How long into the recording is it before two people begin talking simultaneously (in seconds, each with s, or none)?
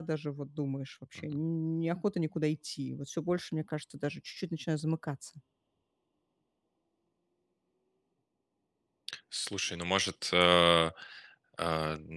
none